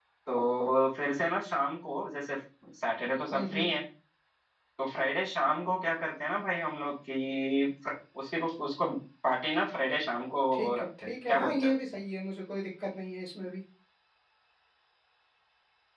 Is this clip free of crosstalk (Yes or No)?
No